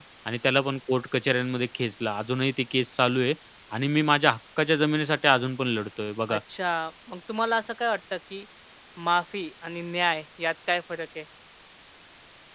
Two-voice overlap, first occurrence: none

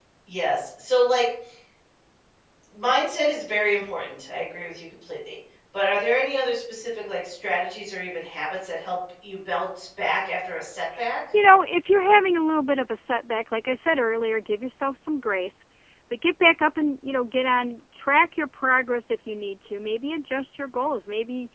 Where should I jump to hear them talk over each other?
none

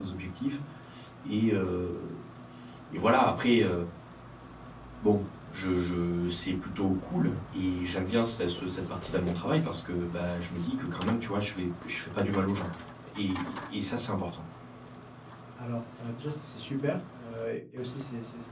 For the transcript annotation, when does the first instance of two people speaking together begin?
none

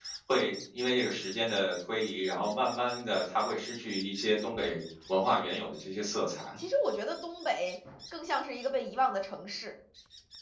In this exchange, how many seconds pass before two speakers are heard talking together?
none

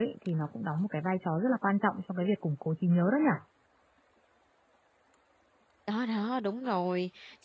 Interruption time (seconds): none

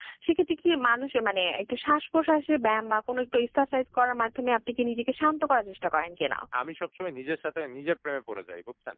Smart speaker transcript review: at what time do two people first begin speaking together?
none

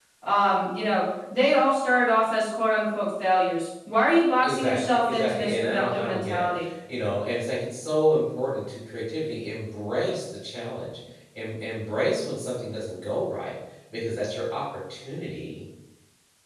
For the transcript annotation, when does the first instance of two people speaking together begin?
4.4 s

